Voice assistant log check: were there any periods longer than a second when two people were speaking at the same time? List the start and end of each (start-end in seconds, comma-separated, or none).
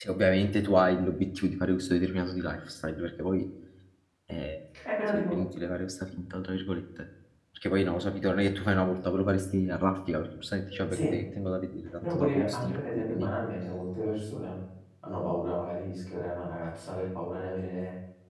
12.0-13.3